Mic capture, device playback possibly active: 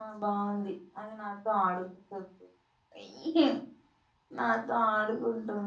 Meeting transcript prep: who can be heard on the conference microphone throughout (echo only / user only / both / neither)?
user only